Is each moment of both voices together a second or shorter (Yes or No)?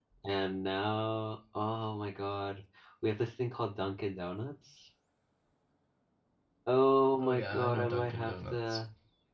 No